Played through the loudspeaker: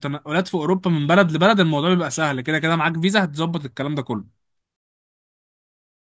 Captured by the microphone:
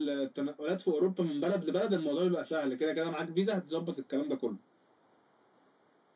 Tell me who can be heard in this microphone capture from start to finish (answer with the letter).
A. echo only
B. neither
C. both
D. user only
A